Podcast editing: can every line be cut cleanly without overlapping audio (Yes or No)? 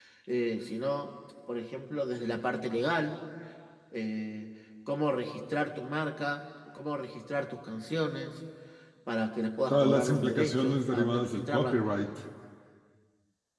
No